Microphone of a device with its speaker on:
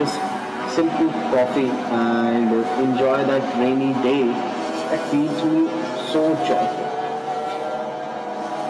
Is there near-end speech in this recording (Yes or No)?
No